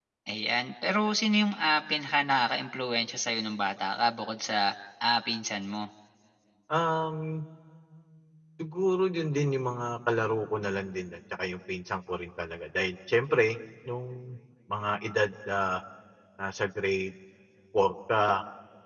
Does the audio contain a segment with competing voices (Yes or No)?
No